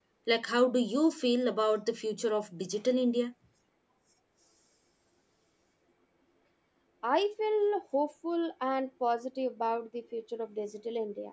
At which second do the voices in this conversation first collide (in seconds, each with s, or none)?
none